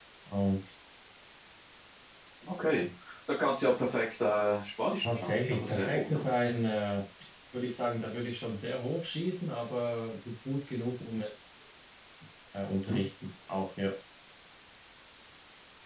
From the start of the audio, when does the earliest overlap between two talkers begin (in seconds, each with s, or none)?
5.0 s